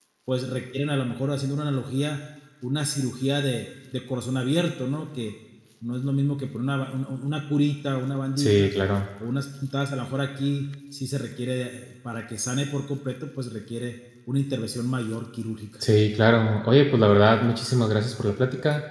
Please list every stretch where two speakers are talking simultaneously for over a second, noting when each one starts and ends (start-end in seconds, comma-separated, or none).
none